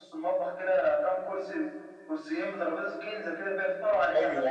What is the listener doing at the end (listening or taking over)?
taking over